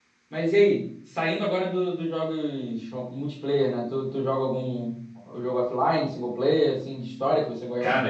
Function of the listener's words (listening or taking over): taking over